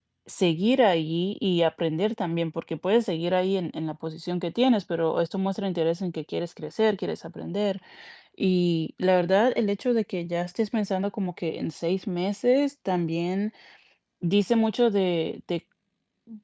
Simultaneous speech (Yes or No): No